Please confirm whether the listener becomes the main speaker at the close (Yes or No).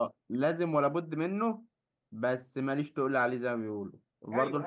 No